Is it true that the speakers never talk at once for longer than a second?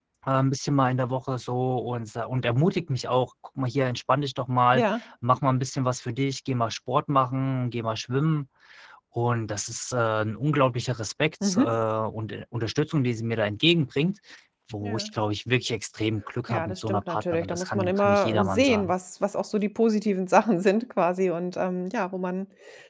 No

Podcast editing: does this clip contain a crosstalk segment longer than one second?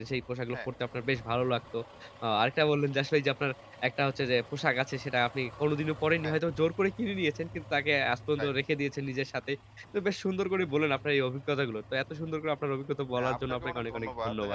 Yes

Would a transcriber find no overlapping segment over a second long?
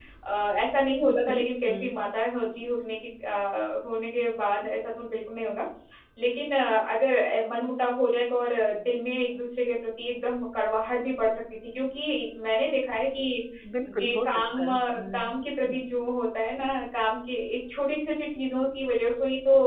No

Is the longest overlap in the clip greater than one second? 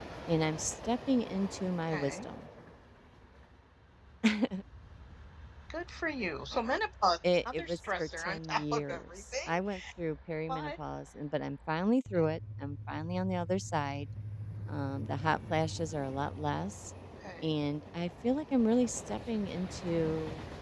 Yes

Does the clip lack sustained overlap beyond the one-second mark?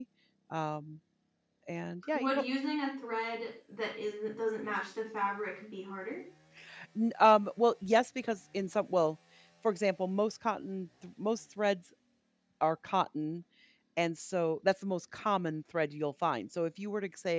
Yes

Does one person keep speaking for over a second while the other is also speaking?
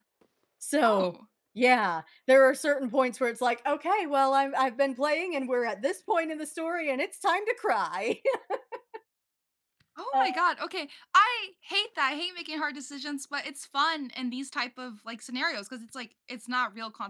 No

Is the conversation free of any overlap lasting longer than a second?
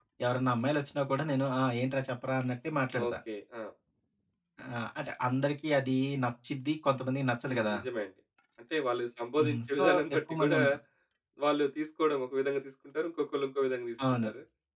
No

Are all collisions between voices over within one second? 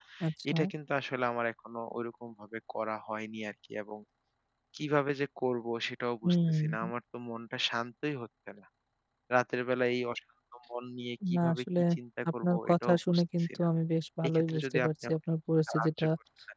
No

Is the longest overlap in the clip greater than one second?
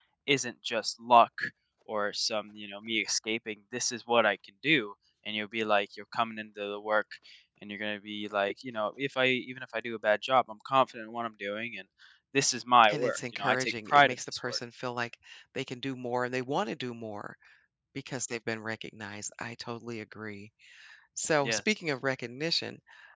Yes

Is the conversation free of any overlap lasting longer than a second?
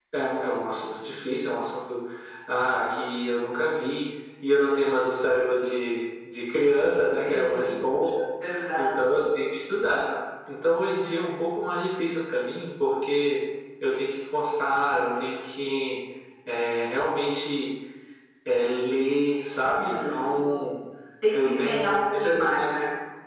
No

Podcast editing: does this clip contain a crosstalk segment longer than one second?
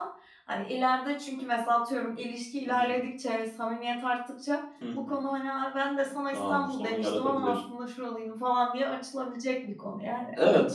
Yes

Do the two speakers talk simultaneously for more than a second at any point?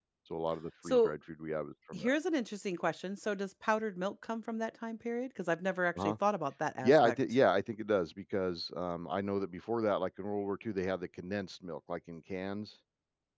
No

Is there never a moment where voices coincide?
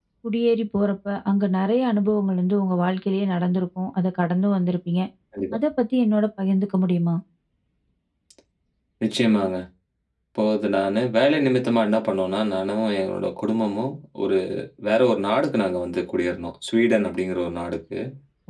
Yes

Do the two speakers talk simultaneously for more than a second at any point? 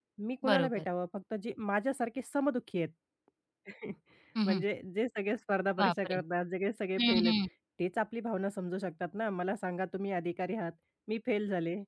No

